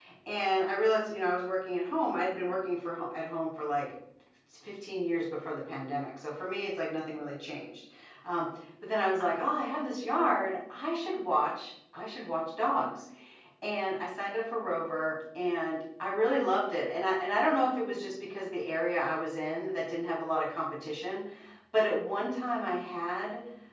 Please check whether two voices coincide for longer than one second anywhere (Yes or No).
No